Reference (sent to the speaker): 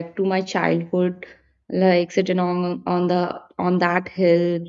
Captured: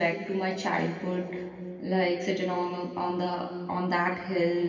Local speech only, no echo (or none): none